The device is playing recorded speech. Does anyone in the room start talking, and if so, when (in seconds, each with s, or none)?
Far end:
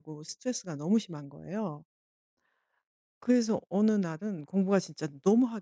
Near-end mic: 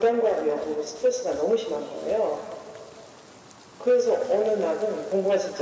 none